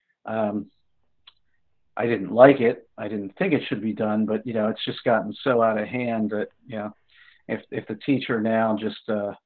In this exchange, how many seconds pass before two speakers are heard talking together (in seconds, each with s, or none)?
none